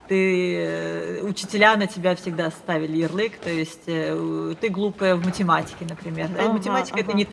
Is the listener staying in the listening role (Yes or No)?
Yes